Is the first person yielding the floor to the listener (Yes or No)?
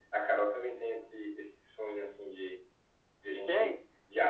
No